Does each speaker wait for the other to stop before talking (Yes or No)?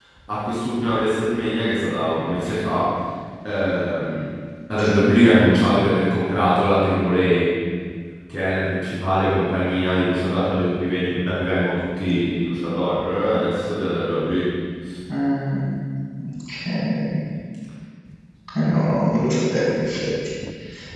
Yes